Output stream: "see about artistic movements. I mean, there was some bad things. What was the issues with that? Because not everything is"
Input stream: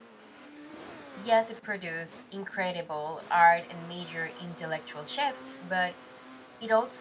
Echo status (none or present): none